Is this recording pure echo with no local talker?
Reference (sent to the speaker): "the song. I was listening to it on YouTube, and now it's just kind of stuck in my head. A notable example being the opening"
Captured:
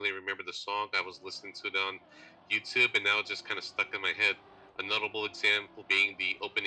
Yes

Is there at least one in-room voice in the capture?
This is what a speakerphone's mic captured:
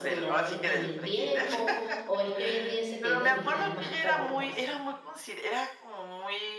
Yes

